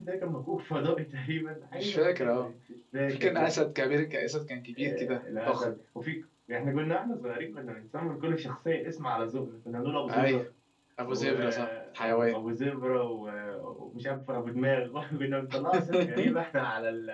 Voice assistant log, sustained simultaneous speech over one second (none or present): present